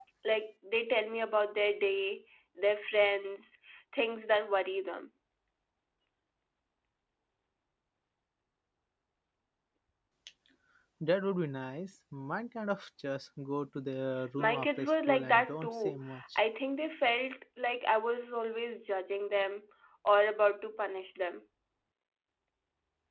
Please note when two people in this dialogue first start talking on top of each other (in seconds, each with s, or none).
14.4 s